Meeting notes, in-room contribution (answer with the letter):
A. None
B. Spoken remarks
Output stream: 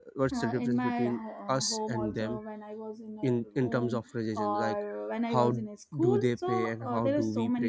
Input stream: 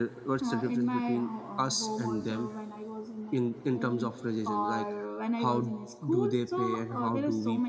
A